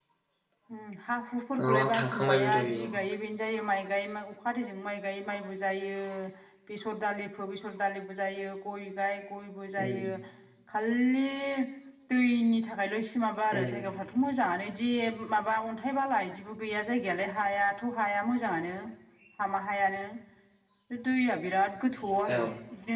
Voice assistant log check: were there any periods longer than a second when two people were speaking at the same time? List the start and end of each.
1.7-2.9

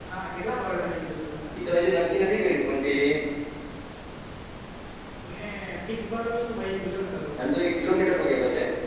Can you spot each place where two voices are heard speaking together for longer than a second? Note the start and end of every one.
none

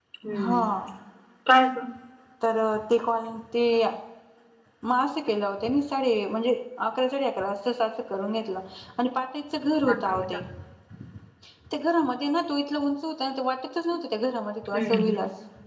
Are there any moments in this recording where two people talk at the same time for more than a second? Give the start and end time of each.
none

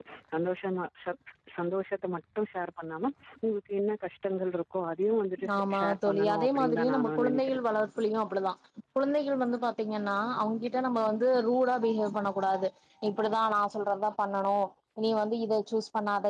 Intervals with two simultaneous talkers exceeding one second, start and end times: 5.6-7.6

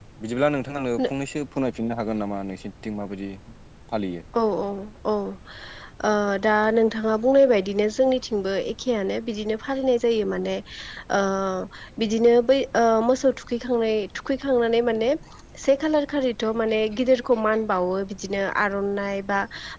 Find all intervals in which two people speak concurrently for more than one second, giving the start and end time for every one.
none

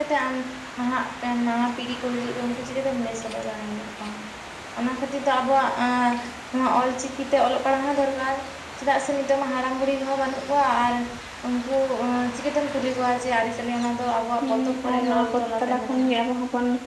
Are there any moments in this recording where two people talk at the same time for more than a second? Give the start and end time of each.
14.5-16.1

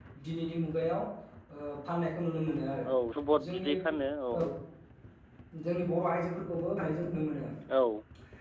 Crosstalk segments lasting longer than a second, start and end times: none

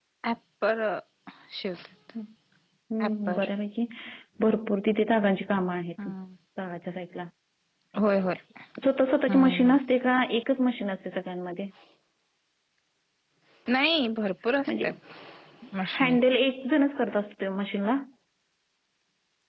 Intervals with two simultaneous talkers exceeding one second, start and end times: none

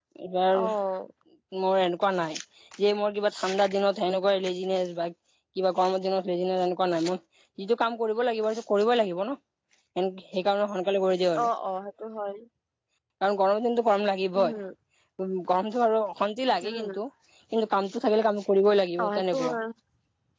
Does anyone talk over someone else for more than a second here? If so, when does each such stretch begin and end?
none

